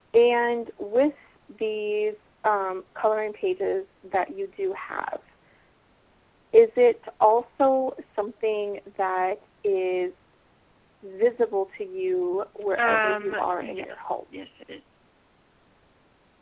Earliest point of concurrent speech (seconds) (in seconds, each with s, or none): 12.8 s